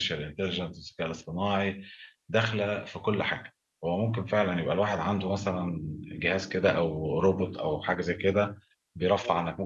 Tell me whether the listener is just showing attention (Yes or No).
Yes